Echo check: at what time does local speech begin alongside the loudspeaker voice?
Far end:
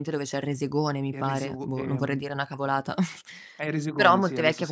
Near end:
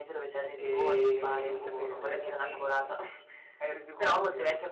0.5 s

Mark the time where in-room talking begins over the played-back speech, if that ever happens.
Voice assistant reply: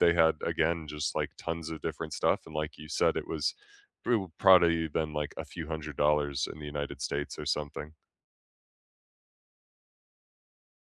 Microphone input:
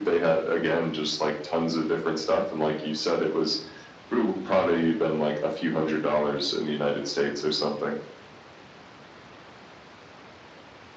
none

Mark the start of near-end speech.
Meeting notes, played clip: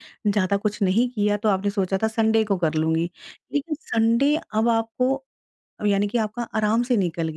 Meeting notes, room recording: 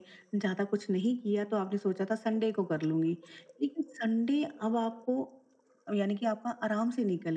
none

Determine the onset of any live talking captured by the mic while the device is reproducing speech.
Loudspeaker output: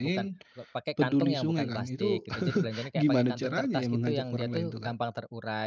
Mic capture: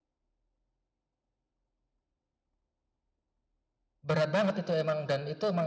4.0 s

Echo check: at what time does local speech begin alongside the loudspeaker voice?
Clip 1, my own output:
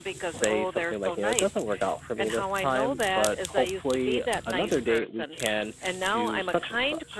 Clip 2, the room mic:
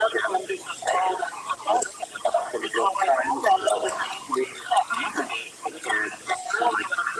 none

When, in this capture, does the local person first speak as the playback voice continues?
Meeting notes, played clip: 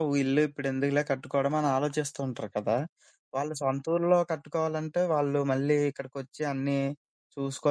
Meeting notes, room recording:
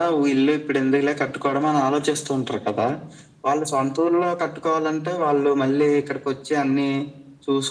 none

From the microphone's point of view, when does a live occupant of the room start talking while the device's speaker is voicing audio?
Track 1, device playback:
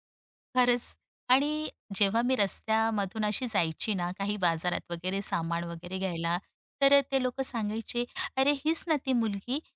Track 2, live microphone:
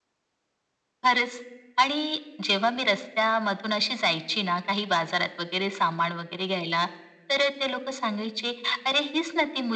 none

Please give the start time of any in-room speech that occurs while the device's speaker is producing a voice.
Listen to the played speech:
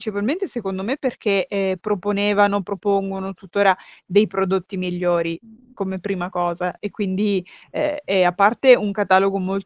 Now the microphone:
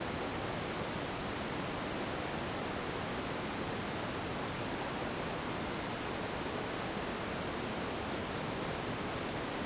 none

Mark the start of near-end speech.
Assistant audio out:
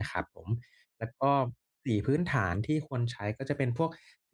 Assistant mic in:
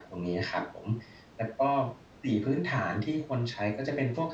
none

